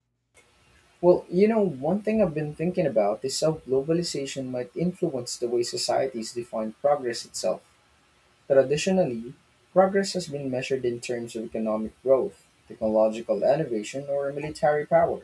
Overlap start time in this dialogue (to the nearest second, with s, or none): none